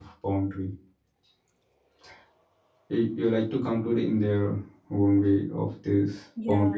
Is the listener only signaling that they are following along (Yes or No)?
No